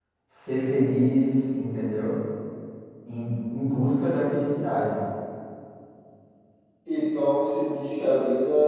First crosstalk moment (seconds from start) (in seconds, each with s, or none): none